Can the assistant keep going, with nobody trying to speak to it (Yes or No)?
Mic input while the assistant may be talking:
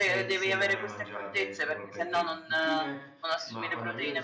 No